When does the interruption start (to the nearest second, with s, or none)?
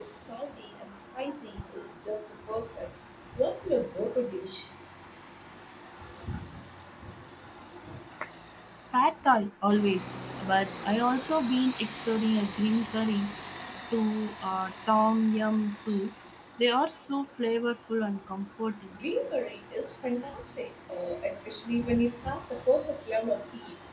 none